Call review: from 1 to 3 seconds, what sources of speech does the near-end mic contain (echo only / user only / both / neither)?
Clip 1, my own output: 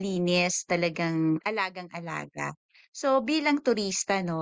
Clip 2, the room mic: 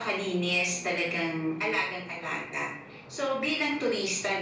echo only